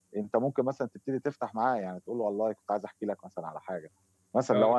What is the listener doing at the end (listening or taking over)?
listening